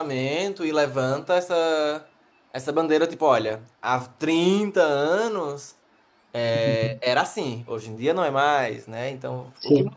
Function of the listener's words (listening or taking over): listening